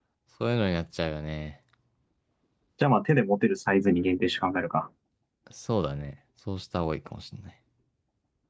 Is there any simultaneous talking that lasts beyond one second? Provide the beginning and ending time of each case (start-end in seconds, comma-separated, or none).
none